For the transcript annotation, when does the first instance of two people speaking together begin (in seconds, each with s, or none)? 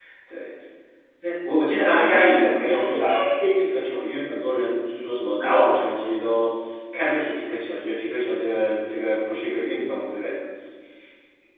1.9 s